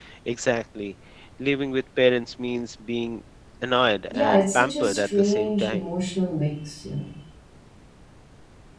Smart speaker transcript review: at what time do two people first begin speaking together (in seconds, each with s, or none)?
4.1 s